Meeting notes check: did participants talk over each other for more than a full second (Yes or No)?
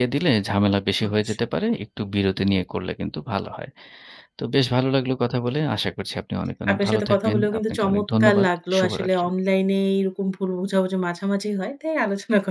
Yes